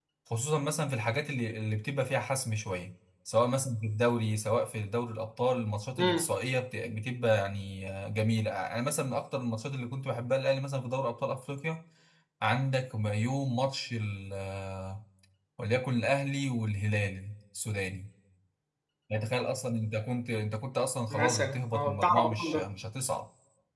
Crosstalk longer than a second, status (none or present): present